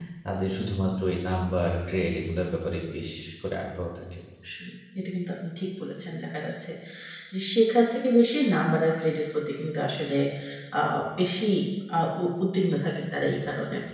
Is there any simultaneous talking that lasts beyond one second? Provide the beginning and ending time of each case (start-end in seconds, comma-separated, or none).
none